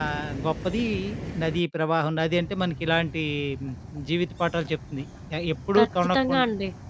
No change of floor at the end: No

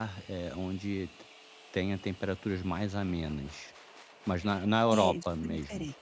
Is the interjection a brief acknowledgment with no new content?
No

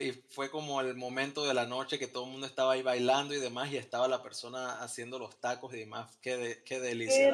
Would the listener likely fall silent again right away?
No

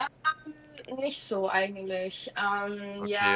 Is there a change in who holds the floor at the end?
Yes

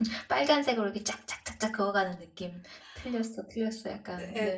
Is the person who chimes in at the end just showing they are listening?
No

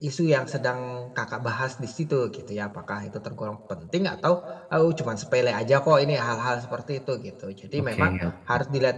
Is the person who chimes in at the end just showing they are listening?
Yes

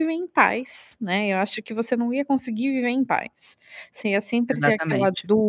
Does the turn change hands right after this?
No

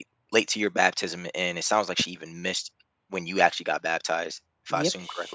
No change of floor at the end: No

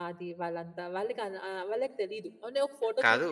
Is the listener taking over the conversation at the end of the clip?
Yes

